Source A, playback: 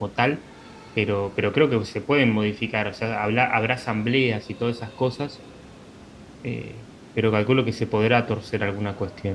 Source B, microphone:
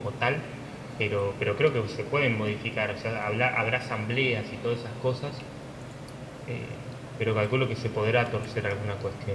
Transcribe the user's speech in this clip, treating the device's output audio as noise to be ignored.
none

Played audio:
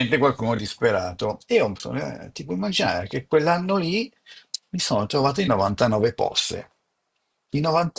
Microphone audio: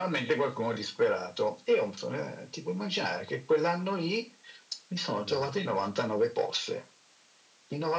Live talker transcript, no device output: Mm.

